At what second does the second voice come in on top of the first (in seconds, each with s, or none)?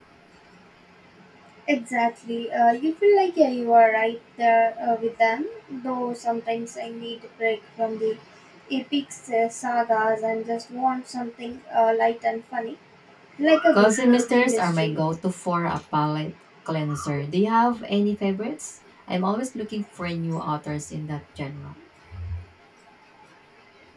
13.7 s